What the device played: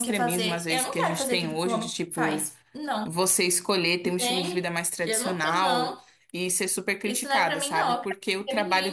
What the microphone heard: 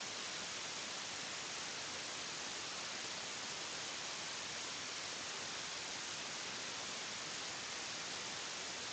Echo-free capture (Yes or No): Yes